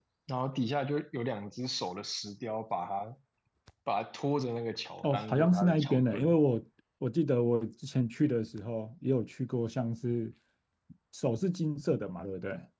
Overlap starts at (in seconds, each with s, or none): 5.0 s